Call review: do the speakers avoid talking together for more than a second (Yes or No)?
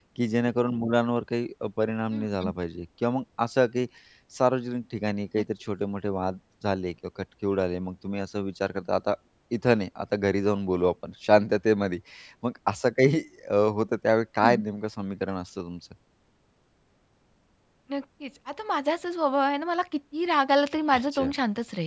Yes